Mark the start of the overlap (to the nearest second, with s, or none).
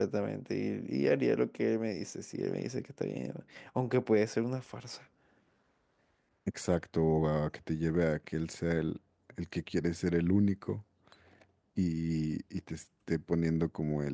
none